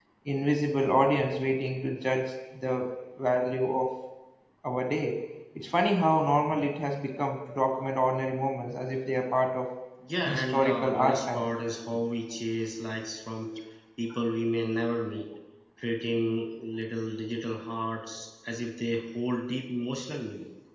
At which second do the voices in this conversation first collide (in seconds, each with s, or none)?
10.2 s